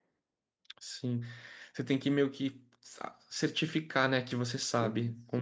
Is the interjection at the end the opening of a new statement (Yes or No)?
Yes